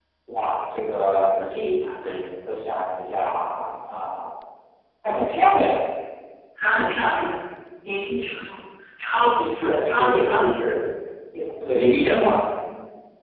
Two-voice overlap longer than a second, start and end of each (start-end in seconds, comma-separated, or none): 9.3-10.7